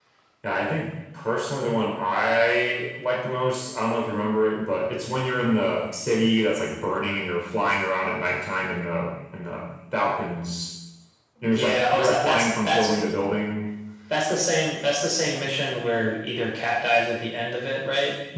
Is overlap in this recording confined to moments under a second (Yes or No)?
No